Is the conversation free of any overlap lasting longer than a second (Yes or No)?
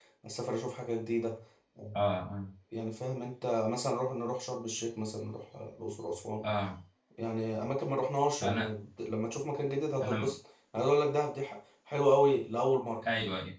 Yes